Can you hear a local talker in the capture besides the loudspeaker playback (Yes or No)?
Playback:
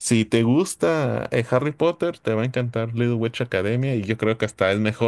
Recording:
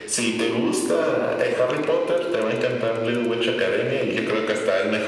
No